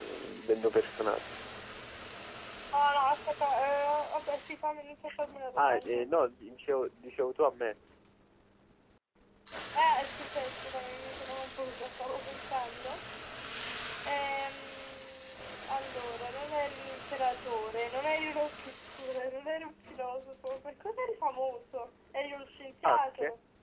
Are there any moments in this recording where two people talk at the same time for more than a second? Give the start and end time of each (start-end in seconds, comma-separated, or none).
none